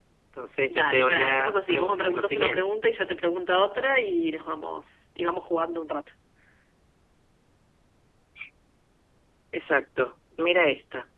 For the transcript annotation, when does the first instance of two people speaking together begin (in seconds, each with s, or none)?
0.7 s